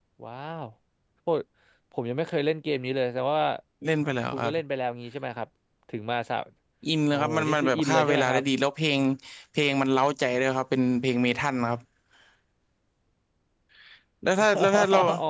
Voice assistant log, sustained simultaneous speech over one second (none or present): present